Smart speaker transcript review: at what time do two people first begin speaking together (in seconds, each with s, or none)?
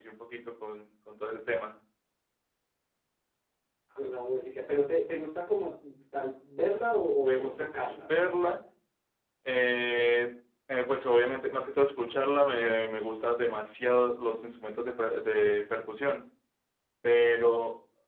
7.2 s